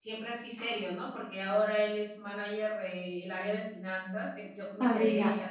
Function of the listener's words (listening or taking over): taking over